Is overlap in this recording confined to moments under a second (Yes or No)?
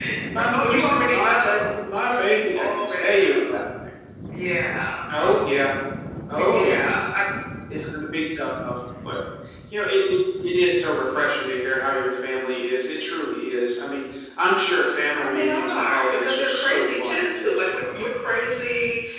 No